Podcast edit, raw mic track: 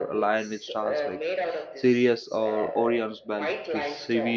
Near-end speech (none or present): present